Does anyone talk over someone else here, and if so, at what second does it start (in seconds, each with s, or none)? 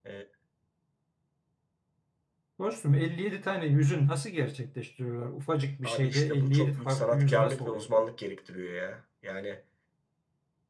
5.8 s